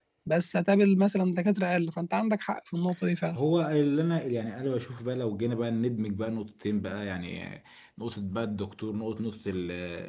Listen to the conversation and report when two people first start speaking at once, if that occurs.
none

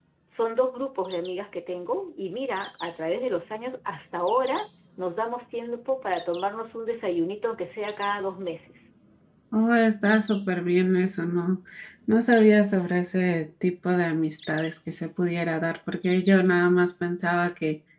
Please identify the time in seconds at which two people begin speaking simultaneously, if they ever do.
none

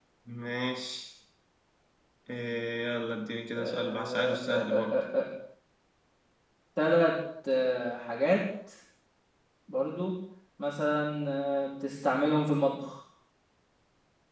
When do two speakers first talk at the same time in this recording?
4 s

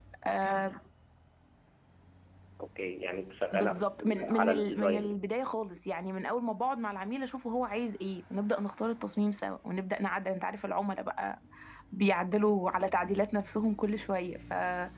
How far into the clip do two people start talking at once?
4 s

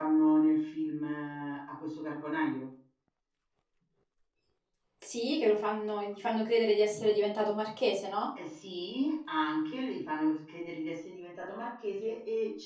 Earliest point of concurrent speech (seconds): none

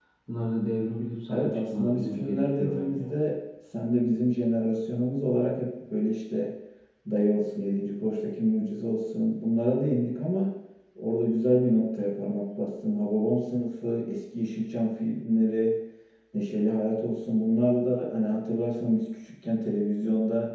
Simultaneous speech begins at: 1 s

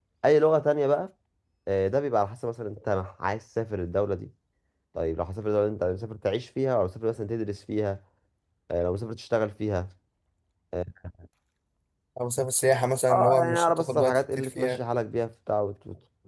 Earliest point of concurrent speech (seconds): 13 s

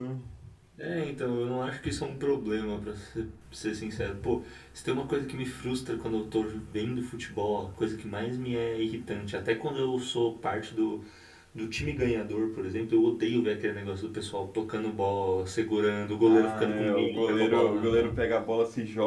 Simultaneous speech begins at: 16 s

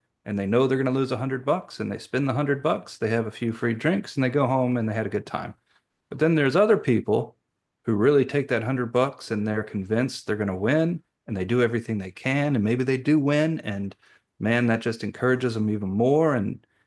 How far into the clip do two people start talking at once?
none

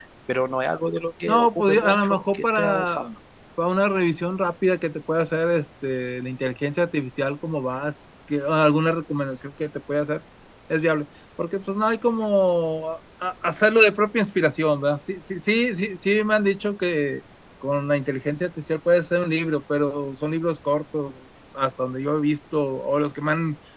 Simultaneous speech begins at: 1 s

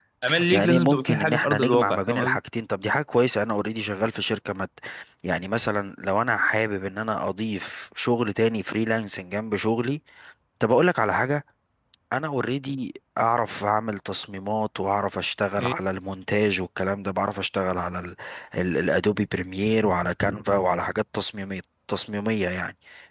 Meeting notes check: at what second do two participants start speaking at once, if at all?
1 s

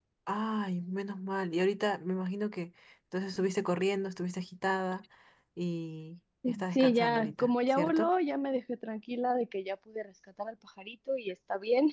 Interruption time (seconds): 7 s

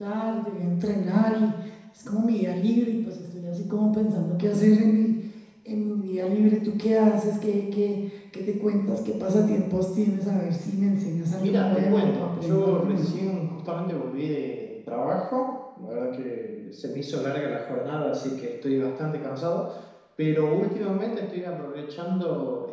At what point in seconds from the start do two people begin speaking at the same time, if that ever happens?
11 s

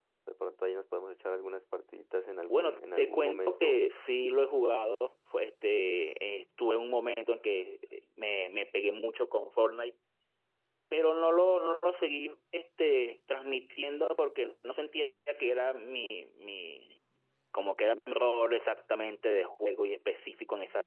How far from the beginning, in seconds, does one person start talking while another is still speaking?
2 s

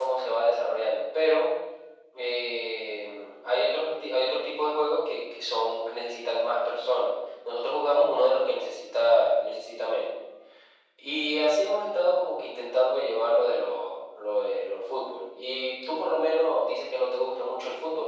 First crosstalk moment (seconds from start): none

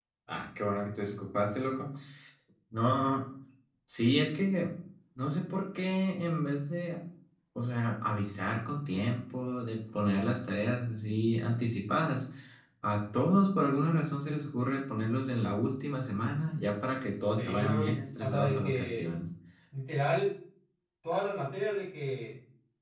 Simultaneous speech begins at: 17 s

